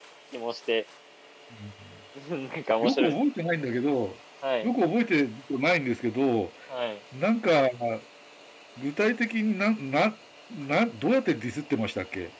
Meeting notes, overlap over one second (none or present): none